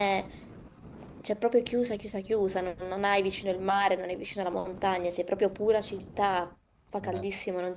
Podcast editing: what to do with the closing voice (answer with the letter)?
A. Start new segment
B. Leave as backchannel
B